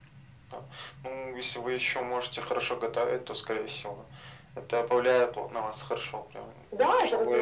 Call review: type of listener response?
taking over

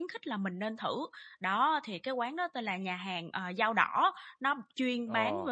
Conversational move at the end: listening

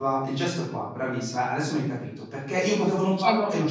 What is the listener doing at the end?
listening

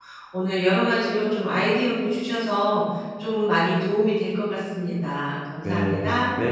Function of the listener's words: taking over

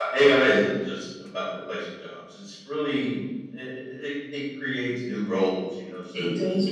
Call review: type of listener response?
taking over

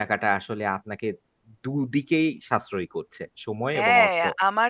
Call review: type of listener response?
taking over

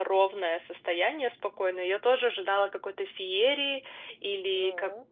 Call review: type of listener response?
listening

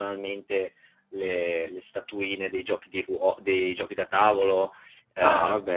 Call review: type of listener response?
taking over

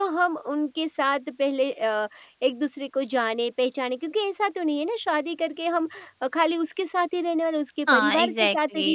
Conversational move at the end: taking over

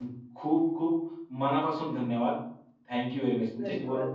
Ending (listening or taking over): listening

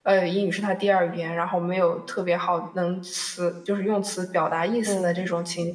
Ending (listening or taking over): listening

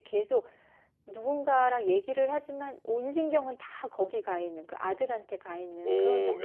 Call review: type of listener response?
taking over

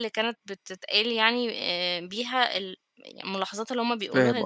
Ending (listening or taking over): taking over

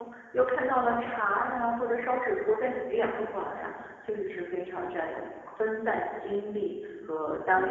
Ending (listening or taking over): taking over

